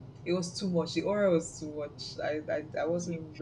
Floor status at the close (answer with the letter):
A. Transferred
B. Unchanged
B